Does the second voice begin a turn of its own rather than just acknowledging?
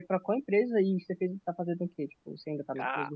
Yes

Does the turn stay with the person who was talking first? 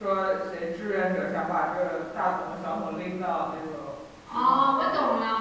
No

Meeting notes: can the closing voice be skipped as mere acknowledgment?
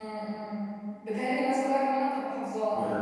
Yes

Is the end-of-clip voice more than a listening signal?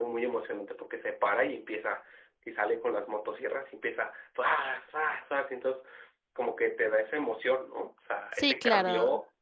Yes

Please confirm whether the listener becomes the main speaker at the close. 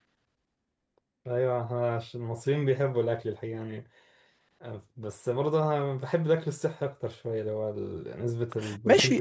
Yes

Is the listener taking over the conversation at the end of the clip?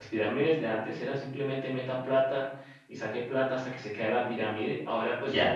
No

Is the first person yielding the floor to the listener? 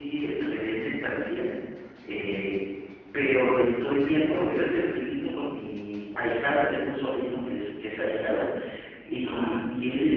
No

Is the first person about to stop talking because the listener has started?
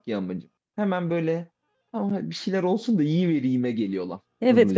Yes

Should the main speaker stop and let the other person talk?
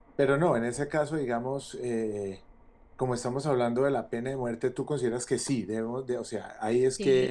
Yes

